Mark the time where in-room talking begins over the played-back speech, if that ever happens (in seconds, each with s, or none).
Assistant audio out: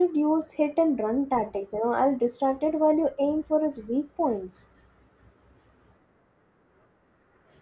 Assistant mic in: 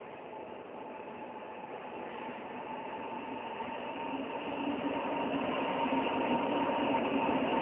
none